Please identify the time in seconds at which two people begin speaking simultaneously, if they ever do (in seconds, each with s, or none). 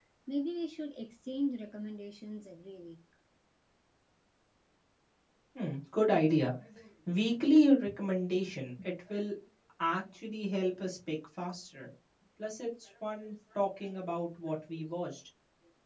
none